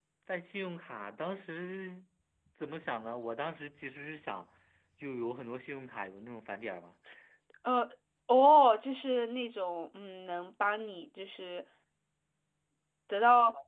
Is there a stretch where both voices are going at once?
No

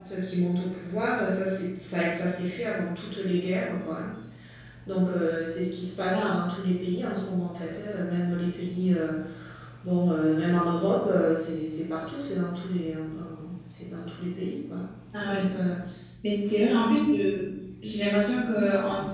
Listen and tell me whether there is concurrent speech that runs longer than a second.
No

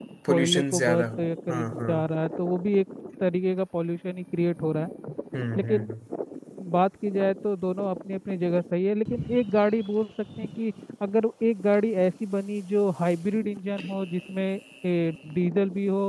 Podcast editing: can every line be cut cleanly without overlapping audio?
No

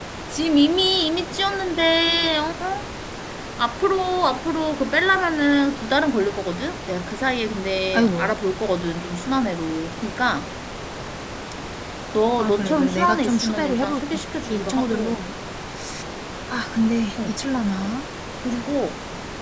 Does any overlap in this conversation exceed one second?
Yes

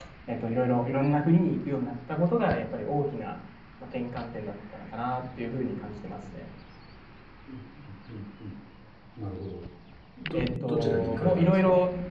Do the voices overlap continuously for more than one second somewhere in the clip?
Yes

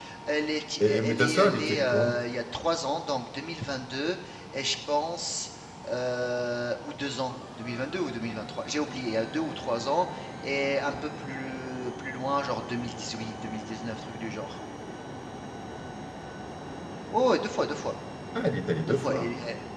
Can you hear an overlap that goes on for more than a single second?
Yes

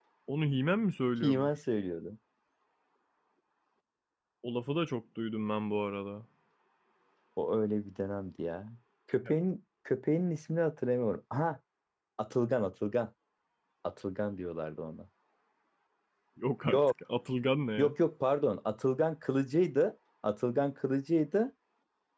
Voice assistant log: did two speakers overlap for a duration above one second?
No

